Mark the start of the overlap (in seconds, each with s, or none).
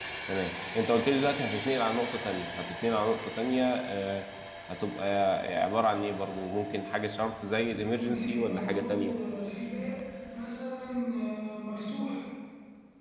7.9 s